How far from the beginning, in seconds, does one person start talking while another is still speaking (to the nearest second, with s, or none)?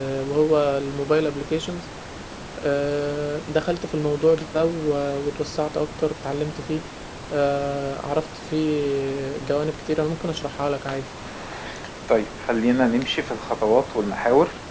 none